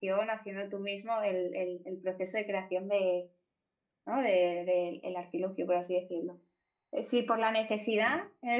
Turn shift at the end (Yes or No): No